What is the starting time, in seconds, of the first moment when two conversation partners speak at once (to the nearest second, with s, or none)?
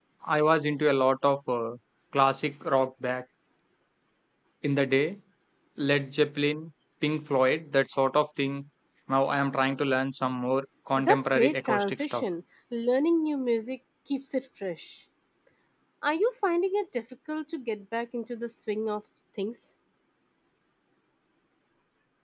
11 s